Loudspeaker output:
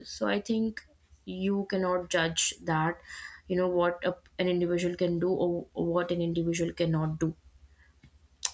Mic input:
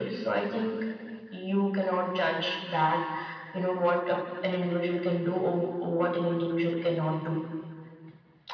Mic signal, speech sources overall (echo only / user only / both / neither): echo only